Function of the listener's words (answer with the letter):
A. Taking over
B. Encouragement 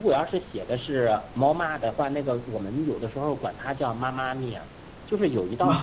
B